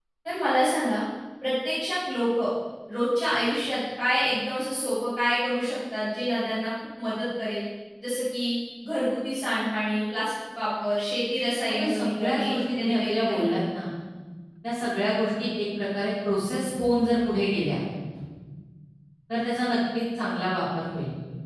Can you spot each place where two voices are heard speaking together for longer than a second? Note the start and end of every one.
11.7-13.6

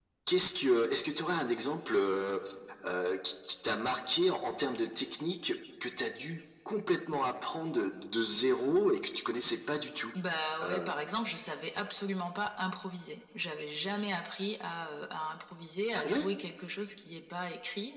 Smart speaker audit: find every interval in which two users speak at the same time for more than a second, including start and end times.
none

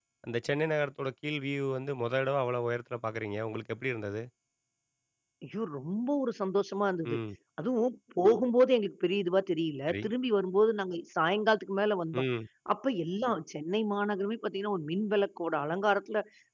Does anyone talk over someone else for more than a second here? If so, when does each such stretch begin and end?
none

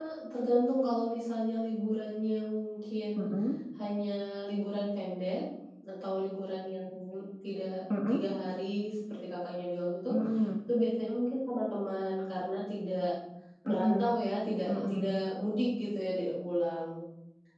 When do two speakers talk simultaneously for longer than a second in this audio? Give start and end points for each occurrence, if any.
none

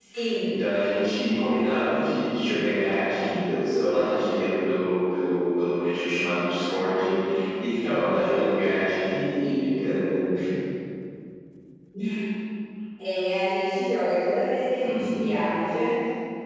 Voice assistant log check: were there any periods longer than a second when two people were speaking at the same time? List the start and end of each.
none

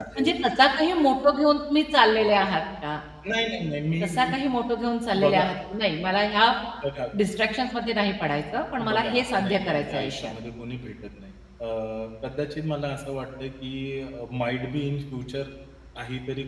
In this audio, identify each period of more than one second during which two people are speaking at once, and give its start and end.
8.9-10.3

